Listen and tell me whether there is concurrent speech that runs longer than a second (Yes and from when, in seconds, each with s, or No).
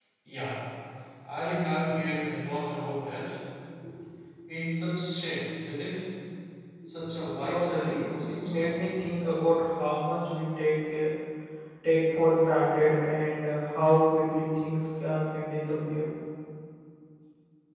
Yes, from 7.5 s